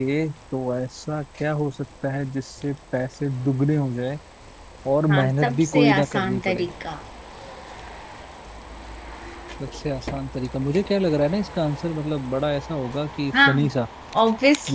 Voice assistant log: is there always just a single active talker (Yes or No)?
No